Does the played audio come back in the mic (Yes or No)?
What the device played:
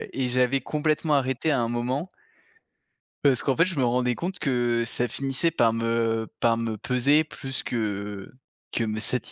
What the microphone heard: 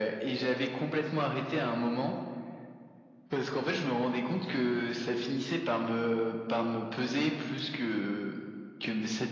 Yes